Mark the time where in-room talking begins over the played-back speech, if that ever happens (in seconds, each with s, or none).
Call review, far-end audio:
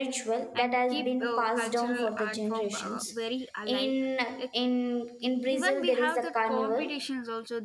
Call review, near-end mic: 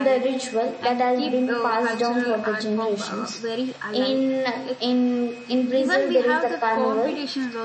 none